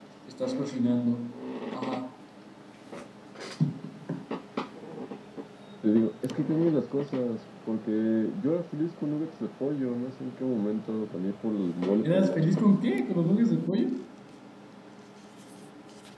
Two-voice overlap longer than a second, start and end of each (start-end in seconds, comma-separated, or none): none